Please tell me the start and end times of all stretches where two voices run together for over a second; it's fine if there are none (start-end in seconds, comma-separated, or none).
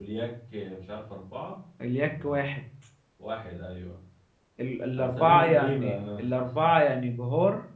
4.9-6.2